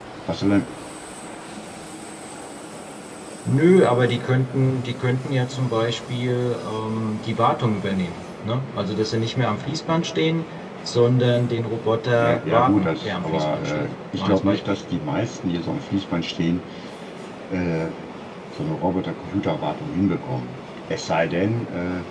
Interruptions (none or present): present